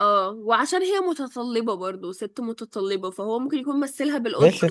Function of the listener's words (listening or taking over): taking over